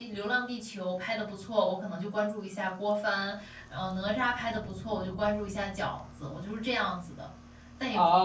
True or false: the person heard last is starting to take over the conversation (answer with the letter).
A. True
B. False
A